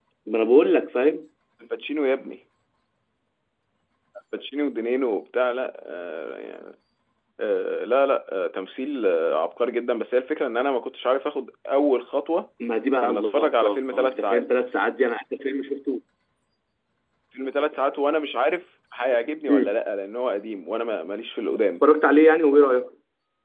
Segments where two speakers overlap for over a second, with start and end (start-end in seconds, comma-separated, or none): 13.0-14.4